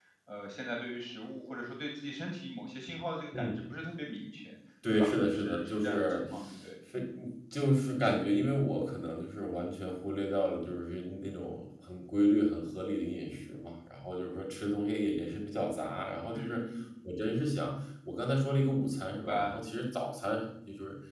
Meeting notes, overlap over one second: present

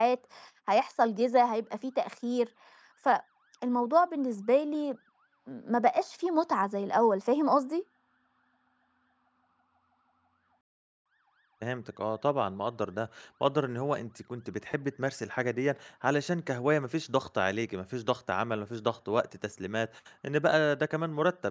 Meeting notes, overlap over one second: none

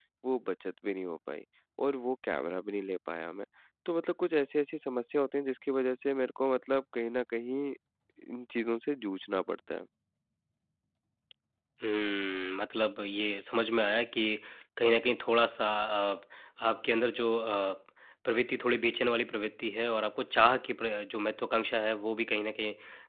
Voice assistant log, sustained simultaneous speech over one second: none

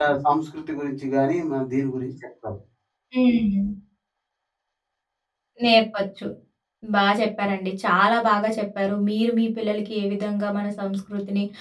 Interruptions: none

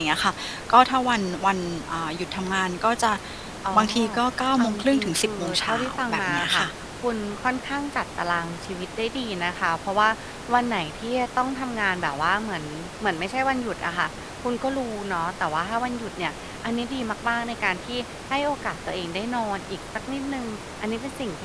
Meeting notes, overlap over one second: present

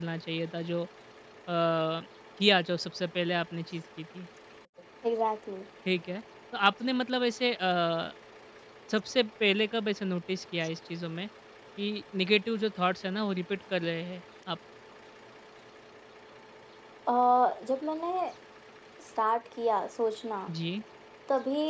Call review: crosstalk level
none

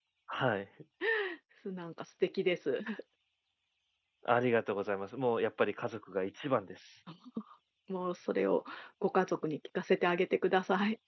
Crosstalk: none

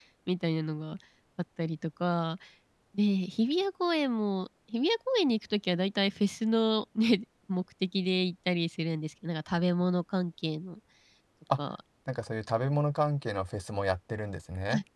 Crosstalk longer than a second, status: none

